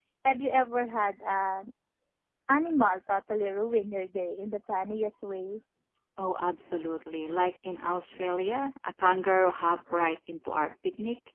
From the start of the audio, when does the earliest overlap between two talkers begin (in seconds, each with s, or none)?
none